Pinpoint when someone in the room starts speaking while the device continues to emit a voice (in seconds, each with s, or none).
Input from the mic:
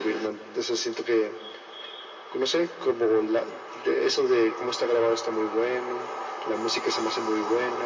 none